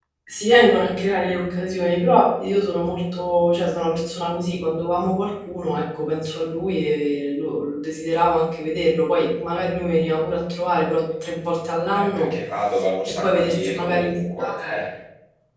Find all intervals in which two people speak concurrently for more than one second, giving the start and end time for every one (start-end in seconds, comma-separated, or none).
13.1-14.8